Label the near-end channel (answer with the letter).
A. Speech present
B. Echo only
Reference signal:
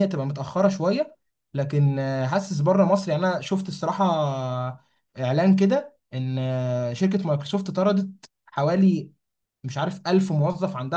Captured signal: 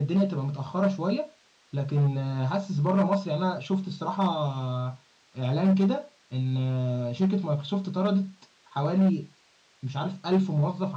B